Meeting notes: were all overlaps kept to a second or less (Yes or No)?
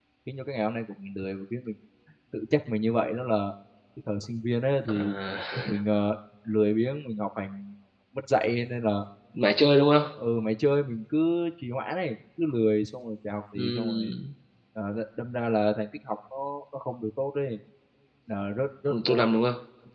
Yes